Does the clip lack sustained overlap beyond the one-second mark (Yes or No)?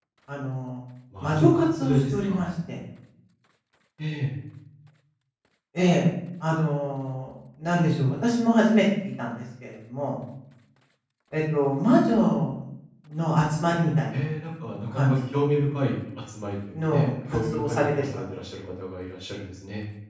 No